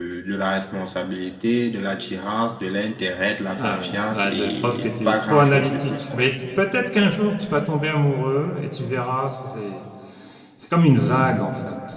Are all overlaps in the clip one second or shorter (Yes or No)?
No